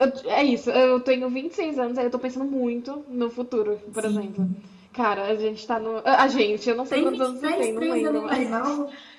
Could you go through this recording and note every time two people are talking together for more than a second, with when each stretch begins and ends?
6.9-8.4

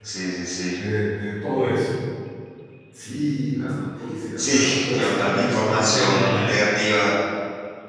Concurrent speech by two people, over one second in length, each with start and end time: 4.4-6.6

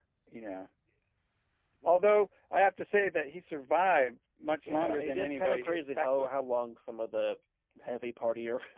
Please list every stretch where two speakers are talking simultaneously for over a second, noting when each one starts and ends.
4.7-6.3

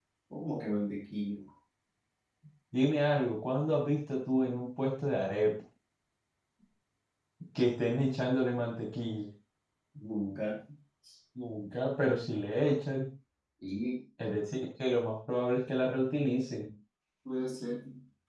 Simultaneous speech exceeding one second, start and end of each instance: none

